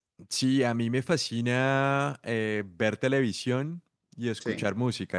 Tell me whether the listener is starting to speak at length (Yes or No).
No